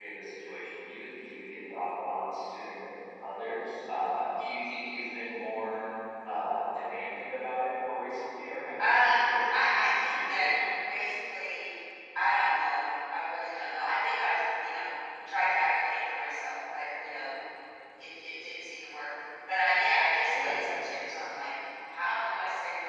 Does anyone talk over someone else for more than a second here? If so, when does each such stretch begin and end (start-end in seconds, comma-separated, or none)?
8.8-10.4